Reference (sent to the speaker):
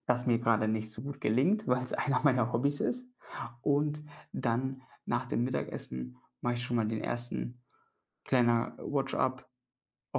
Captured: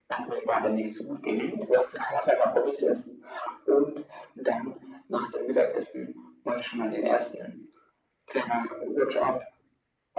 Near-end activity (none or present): none